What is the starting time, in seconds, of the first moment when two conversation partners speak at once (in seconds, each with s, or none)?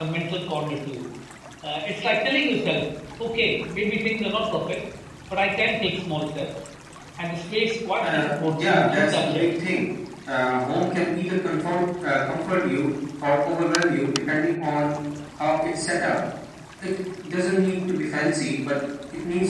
8.0 s